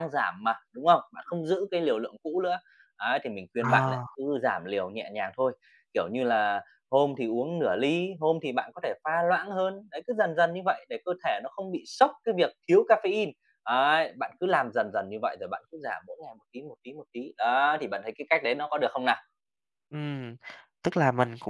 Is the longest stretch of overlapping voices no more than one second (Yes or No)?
Yes